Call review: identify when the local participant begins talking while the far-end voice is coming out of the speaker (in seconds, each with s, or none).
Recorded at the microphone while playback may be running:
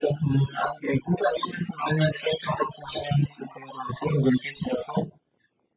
none